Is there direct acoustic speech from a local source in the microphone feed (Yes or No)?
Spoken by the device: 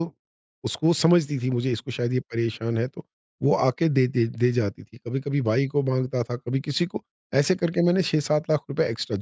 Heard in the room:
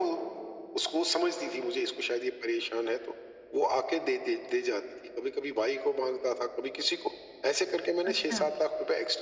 Yes